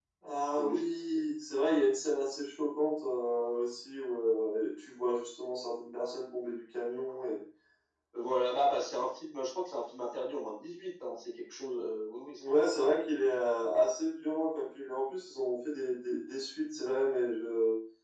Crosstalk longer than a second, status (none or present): none